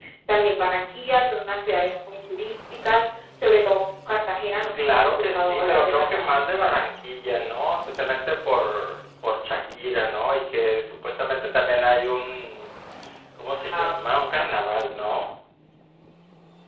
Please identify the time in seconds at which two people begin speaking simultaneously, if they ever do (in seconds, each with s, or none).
4.7 s